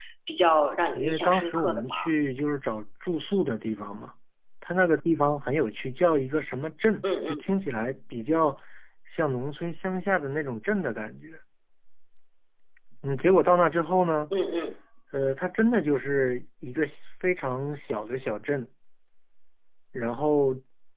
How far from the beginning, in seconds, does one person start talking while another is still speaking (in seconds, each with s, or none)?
0.9 s